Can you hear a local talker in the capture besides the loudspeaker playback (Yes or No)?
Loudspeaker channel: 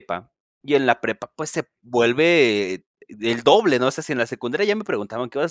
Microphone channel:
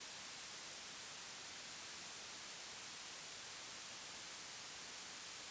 No